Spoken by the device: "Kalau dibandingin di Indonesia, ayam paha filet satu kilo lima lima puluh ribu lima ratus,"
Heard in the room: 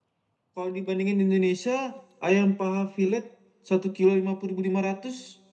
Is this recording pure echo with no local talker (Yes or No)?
Yes